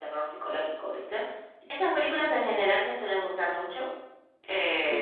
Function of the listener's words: taking over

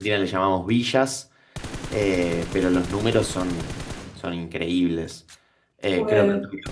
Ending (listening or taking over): listening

